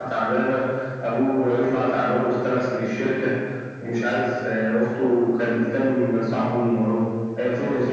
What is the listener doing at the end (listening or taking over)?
taking over